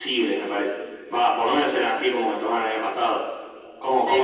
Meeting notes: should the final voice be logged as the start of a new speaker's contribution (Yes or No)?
Yes